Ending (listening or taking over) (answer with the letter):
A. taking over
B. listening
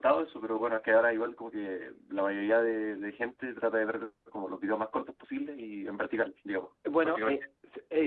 A